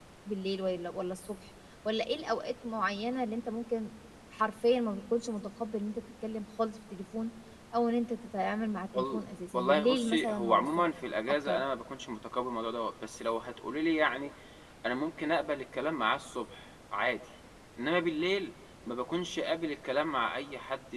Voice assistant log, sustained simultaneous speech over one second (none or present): present